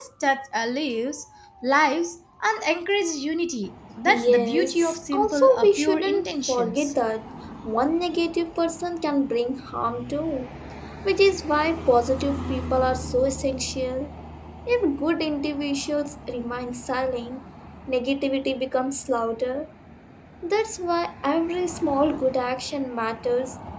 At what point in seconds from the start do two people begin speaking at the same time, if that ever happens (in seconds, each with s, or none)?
4.1 s